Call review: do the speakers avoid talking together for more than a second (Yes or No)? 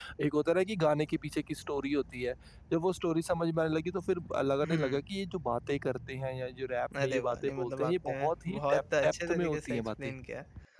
No